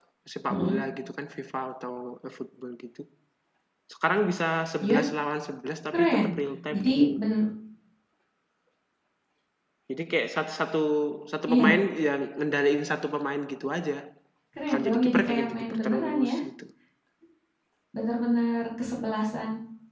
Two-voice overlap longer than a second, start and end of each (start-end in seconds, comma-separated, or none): 14.7-16.4